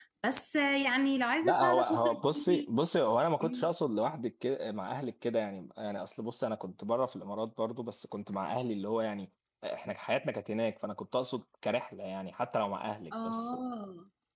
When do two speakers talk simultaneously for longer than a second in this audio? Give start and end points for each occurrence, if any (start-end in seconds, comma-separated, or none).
1.4-2.7